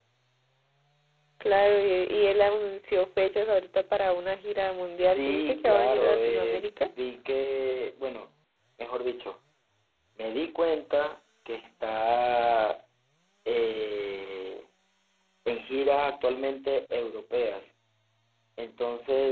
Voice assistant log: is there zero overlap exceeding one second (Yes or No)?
No